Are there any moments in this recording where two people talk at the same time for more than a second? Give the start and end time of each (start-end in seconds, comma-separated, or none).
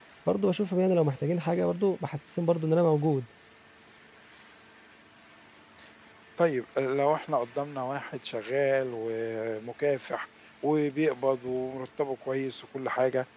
none